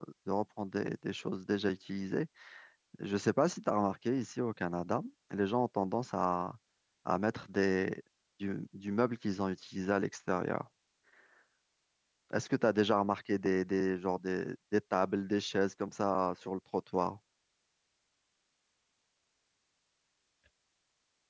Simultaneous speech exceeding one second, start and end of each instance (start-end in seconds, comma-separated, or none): none